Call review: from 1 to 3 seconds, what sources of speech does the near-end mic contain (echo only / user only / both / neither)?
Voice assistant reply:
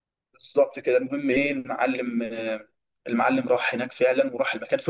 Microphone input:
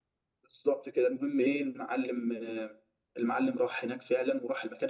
echo only